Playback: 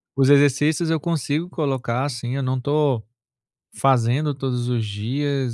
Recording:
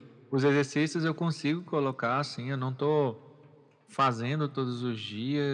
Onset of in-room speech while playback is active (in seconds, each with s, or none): none